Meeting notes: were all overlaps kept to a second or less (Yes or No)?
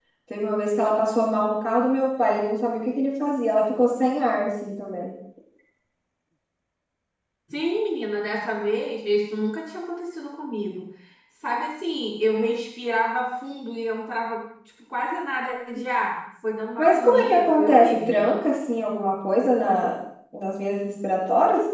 No